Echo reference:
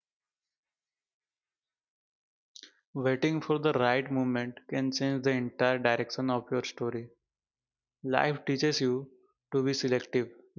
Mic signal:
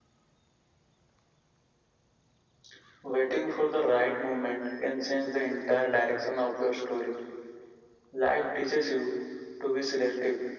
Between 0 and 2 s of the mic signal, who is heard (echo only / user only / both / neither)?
neither